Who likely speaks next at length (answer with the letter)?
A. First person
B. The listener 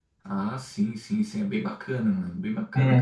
B